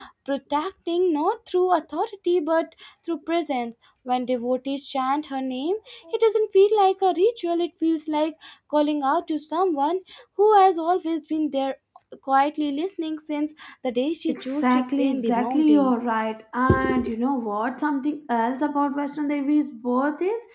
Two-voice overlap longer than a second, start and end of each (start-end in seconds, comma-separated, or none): 14.3-15.9